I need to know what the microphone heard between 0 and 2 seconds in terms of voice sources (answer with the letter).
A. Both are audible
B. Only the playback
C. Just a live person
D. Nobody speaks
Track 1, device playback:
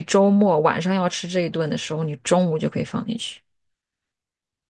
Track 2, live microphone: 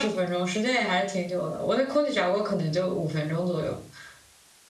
C